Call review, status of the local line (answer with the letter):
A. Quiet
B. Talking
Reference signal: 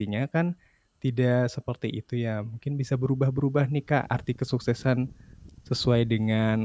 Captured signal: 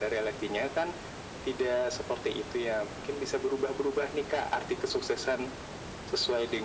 A